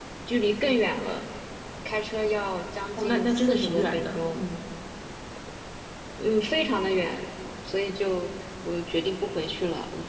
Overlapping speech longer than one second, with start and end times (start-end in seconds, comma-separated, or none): 3.0-4.4